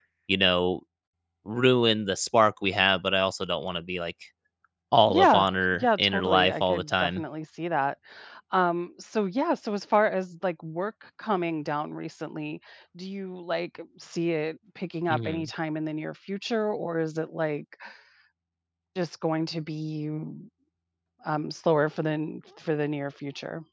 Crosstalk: present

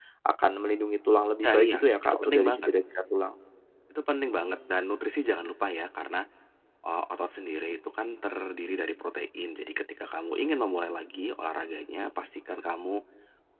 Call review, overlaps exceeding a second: present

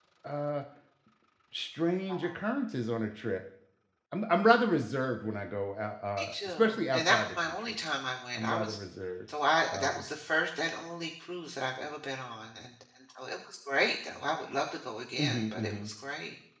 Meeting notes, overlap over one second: present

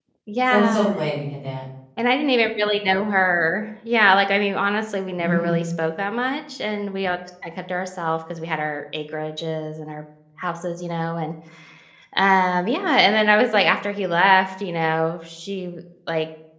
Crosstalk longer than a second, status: none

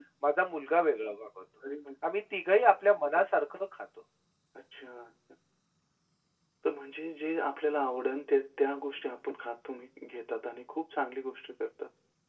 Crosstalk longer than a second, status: none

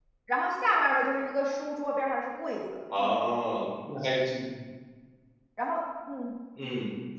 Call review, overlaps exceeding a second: none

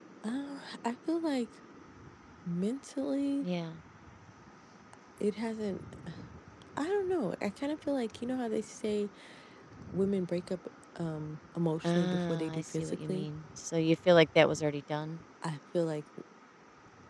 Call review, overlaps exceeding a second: present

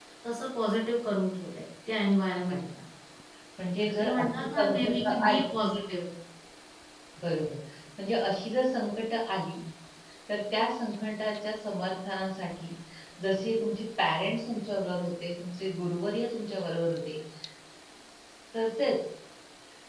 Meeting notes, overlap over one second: present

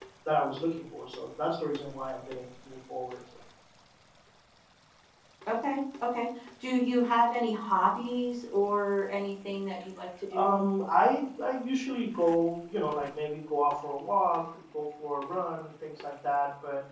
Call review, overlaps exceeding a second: none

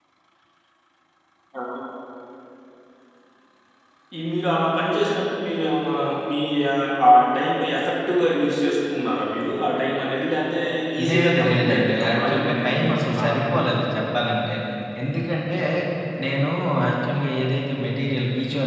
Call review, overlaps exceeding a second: present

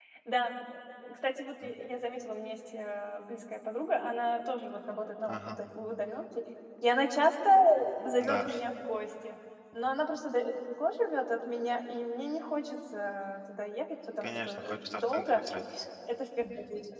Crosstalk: present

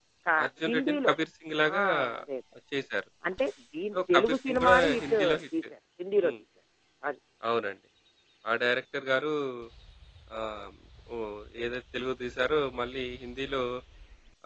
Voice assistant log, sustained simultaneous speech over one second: present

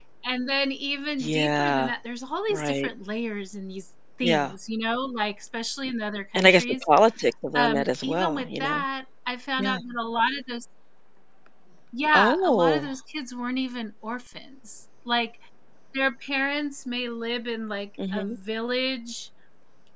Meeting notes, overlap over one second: present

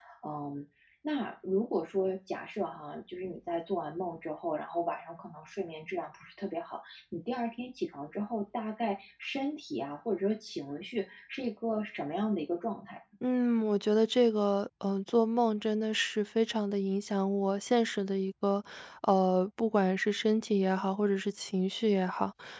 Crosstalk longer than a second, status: none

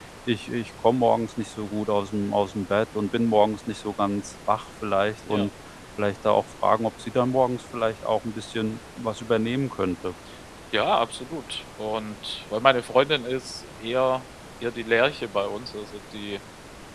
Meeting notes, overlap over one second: none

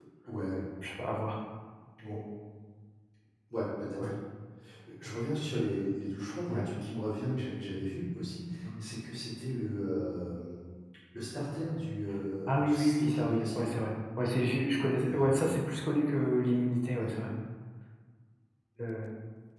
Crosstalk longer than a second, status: present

